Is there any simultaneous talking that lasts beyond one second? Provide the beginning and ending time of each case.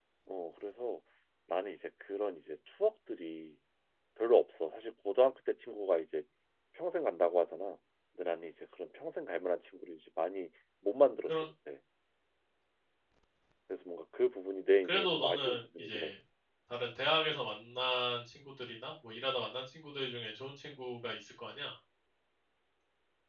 14.8-16.1

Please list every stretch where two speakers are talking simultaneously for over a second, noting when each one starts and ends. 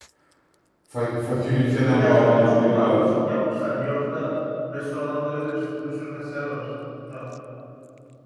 1.8-3.0

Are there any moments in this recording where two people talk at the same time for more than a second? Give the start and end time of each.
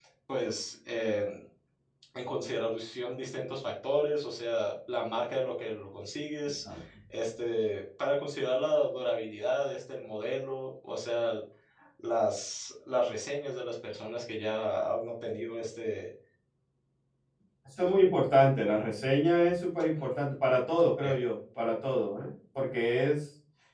none

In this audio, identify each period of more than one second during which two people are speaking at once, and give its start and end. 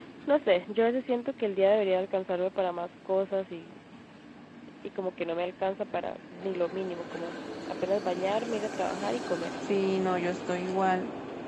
none

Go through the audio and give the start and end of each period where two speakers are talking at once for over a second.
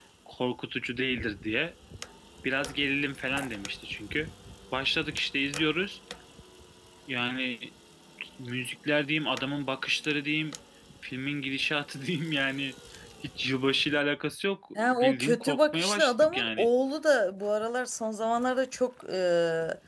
14.8-16.7

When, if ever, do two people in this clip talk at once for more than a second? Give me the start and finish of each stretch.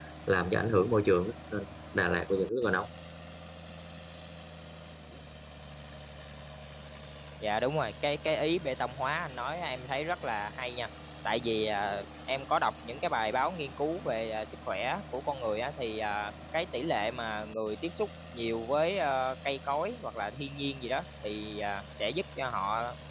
none

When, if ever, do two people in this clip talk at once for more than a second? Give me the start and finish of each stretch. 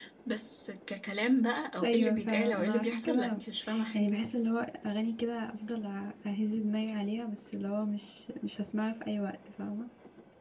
1.8-3.4

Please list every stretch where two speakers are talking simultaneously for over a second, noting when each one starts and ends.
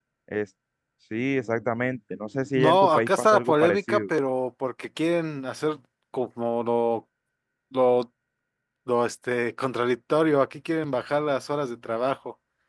2.6-4.0

